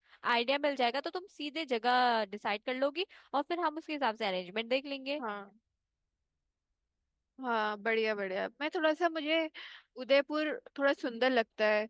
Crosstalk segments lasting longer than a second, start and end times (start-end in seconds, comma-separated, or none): none